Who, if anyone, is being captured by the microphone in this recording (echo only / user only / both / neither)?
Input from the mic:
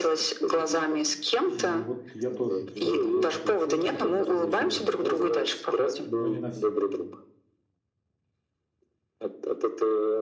both